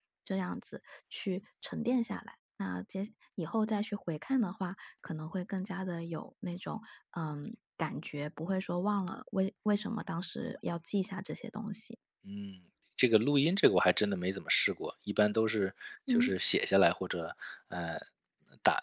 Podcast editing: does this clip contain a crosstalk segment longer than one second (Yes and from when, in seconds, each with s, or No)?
No